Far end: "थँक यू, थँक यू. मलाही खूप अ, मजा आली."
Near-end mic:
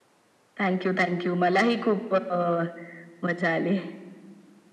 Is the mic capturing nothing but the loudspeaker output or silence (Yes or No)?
Yes